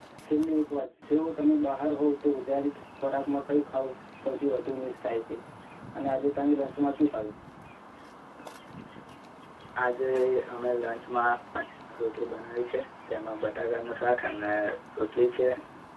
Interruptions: none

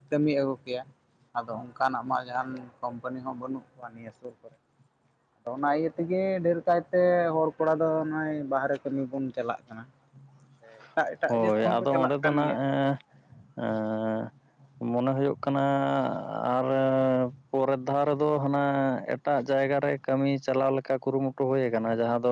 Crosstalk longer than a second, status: present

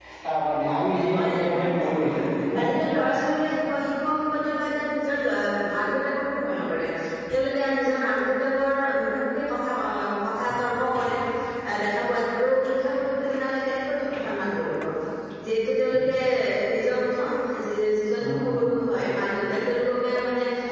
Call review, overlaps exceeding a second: present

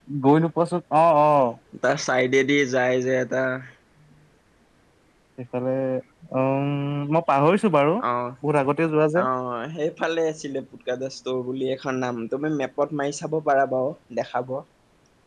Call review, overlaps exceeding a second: none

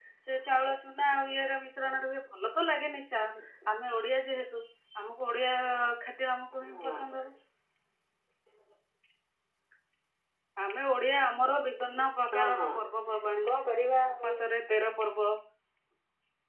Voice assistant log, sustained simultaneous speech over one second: none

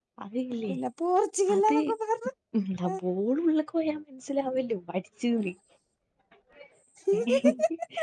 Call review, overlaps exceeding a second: none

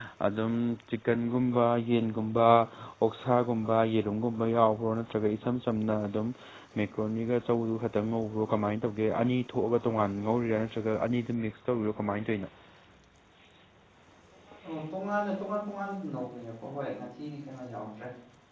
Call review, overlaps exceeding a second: none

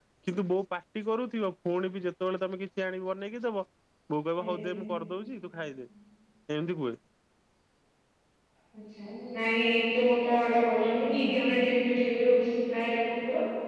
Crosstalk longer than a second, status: none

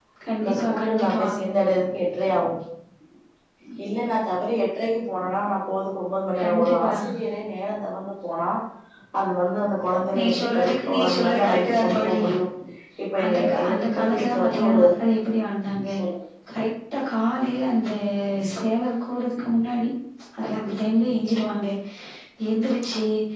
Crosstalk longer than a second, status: present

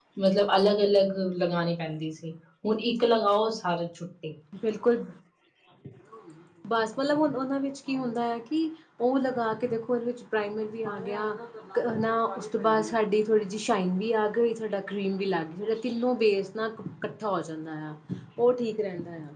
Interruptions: none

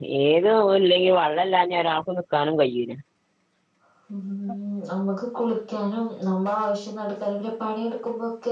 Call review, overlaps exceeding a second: none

